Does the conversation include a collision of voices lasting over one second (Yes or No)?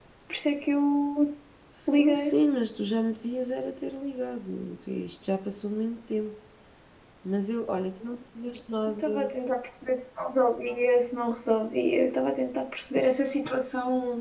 No